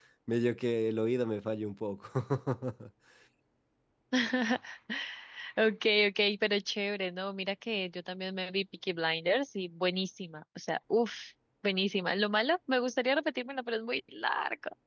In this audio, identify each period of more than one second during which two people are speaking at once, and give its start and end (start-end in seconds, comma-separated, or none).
none